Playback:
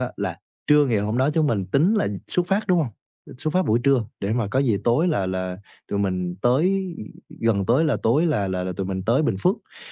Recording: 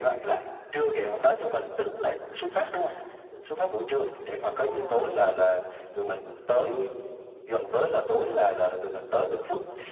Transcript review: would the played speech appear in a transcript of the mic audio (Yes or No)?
Yes